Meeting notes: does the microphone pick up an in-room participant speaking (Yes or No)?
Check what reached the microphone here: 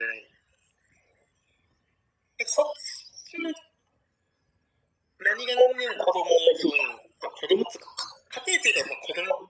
No